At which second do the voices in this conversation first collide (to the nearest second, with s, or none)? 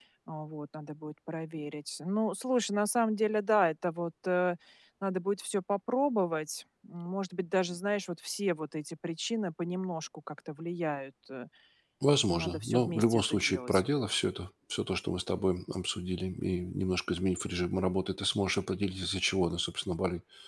12 s